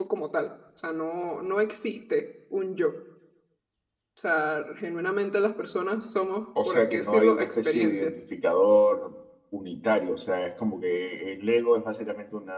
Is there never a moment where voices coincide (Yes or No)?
No